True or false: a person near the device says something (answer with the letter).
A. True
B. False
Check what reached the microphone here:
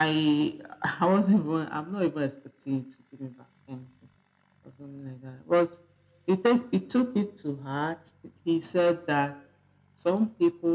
B